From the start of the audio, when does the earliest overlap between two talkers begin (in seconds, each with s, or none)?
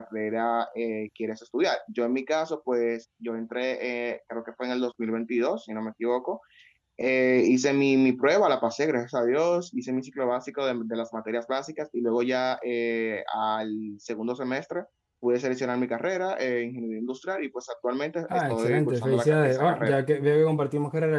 18.3 s